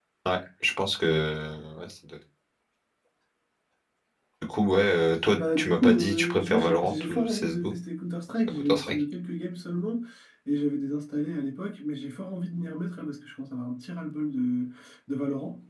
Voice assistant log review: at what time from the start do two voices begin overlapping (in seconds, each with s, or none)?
5.3 s